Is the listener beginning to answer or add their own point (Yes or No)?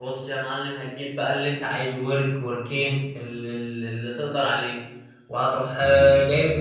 No